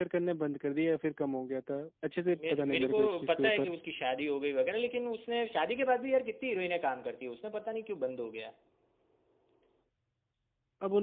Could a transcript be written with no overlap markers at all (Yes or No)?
No